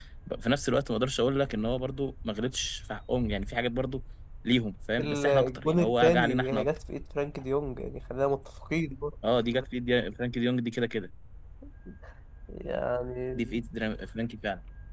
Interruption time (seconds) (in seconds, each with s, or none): 5.0 s